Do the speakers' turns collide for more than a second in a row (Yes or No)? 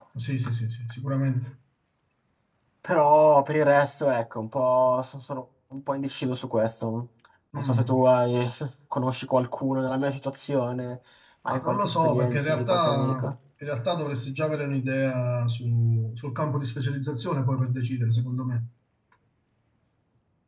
Yes